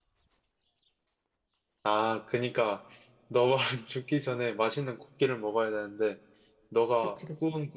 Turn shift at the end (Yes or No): No